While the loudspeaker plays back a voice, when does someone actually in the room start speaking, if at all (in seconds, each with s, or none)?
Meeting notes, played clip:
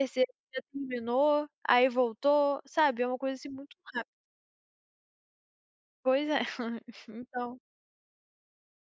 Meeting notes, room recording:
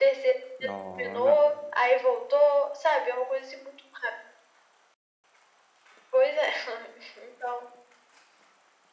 0.6 s